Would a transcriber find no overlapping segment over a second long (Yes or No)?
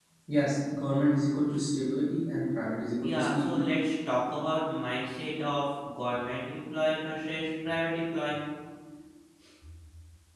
Yes